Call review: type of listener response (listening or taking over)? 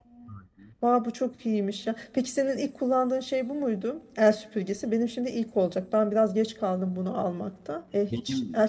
listening